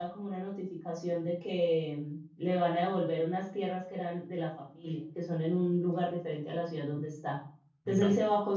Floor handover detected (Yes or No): No